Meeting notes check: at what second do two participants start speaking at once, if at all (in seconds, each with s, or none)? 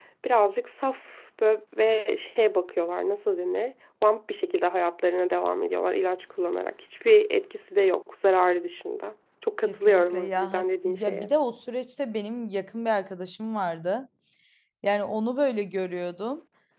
9.7 s